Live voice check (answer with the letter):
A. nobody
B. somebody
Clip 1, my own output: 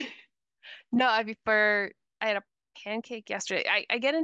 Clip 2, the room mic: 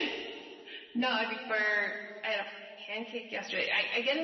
A